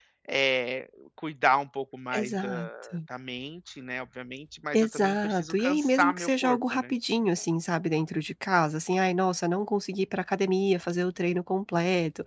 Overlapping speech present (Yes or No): Yes